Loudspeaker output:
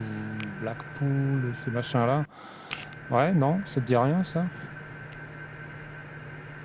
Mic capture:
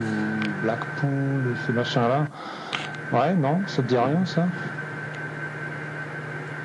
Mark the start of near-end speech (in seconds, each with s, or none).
4.0 s